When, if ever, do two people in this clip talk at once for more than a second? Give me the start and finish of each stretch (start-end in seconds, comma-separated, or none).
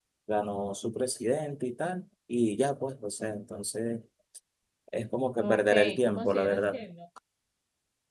5.4-6.8